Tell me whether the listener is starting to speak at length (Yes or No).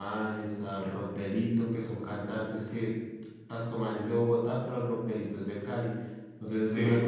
No